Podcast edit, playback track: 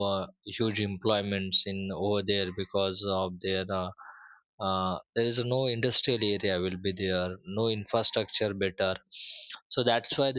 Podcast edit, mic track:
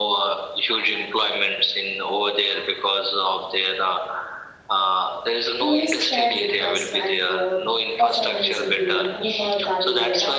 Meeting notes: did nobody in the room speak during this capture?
No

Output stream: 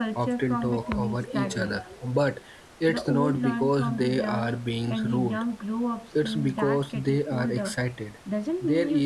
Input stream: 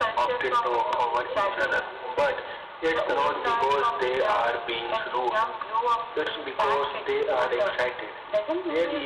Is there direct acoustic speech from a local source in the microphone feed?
No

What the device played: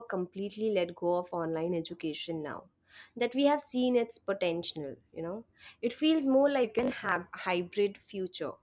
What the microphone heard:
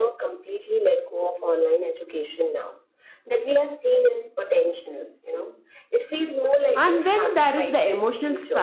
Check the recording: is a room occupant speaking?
Yes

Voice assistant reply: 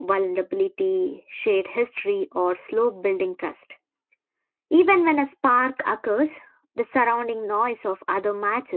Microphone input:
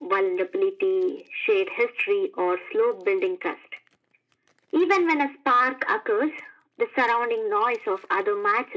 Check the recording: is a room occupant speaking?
No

